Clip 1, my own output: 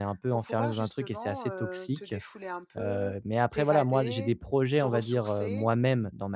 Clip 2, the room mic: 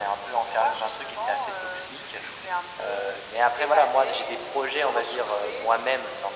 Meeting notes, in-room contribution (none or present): none